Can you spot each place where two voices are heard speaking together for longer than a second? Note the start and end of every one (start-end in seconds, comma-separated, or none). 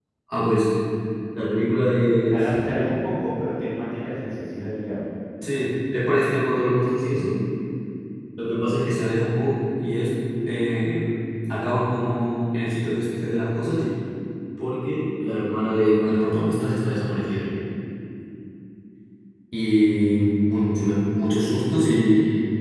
none